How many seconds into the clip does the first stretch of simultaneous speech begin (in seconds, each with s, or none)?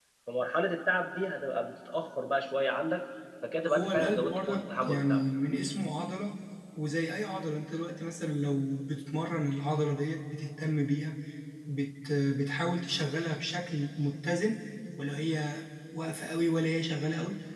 3.7 s